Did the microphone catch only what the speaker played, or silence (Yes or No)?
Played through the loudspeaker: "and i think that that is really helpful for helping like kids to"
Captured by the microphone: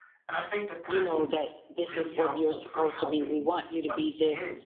No